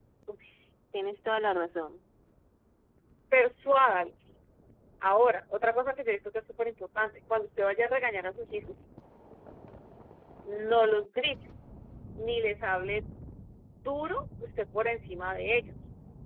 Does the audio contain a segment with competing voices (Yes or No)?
No